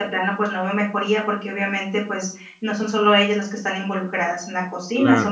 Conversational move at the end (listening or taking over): listening